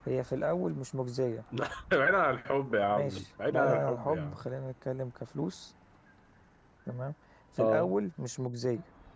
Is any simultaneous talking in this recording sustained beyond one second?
Yes, from 2.9 s

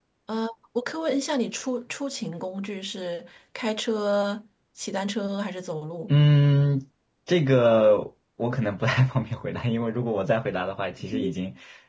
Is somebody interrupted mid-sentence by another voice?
No

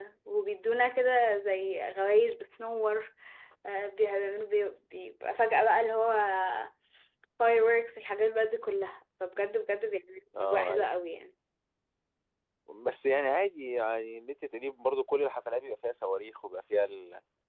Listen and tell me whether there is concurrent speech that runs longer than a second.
No

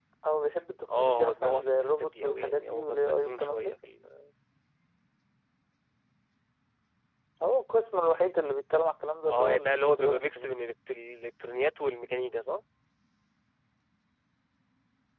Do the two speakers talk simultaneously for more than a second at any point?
Yes, from 1.0 s

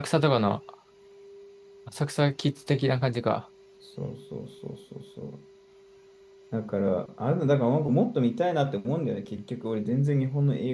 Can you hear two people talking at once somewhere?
No

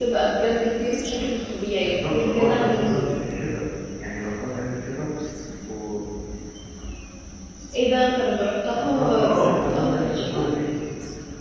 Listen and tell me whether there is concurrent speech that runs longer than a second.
Yes, from 1.8 s

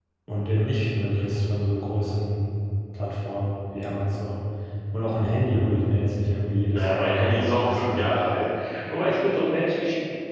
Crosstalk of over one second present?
Yes, from 6.7 s

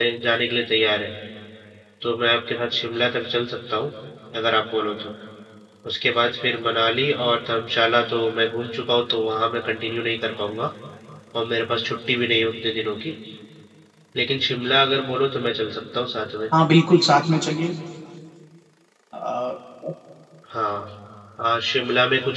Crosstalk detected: No

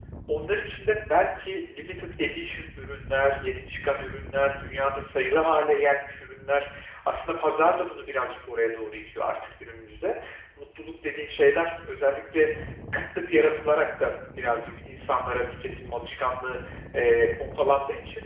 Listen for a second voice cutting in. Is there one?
No

